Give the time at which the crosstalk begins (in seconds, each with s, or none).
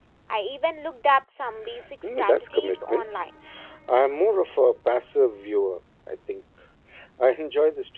2.0 s